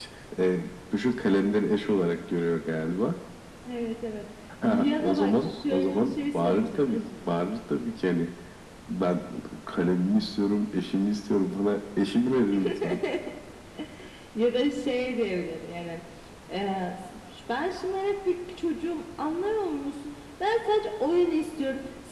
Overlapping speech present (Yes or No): Yes